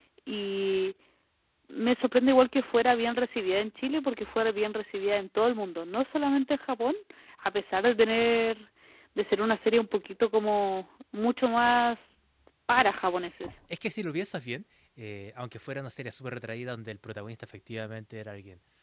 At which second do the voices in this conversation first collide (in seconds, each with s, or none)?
none